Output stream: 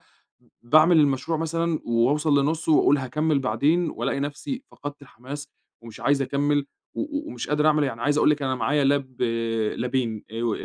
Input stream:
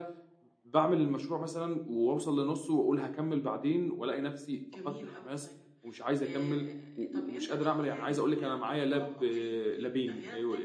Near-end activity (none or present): present